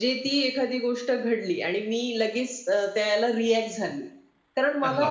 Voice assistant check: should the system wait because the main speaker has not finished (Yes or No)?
Yes